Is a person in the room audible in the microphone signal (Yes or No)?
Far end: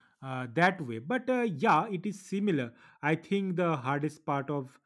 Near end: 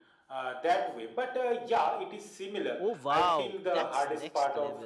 Yes